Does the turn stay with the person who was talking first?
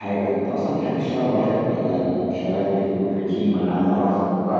No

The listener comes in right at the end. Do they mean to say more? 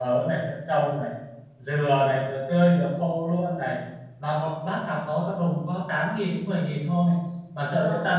No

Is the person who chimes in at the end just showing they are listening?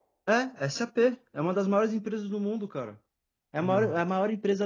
Yes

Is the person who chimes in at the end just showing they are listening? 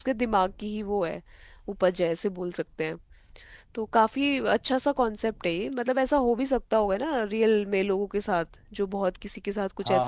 No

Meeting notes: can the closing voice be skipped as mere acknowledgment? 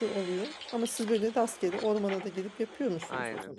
No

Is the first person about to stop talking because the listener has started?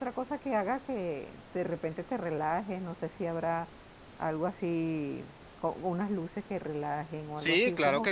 Yes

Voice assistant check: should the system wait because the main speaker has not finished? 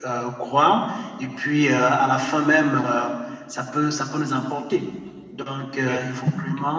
Yes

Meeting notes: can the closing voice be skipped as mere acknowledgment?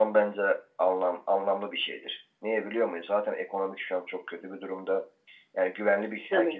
No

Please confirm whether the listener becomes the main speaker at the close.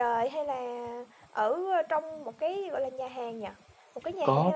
Yes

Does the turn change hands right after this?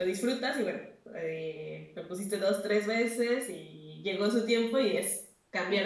Yes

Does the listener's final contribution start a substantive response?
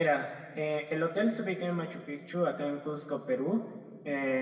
No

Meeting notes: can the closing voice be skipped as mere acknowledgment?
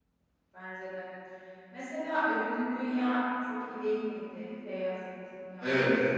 No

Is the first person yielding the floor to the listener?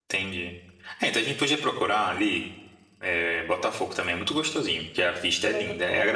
No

